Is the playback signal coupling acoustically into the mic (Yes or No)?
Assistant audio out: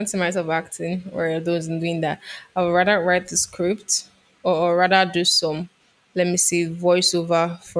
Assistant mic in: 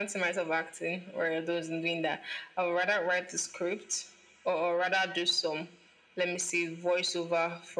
Yes